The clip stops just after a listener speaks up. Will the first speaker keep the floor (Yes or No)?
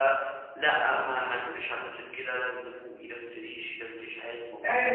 No